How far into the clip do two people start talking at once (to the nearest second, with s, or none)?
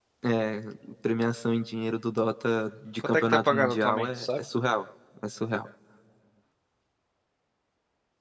3 s